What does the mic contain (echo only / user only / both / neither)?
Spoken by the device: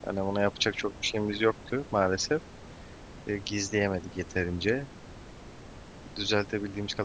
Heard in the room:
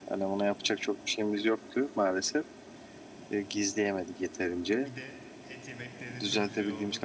both